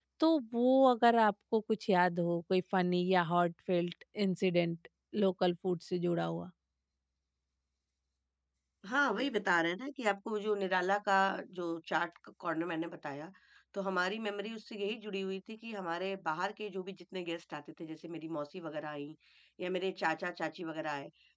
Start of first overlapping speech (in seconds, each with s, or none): none